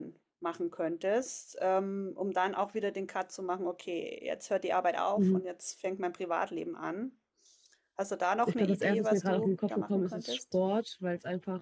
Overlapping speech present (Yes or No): Yes